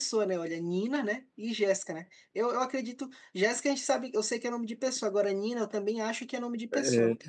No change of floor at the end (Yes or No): No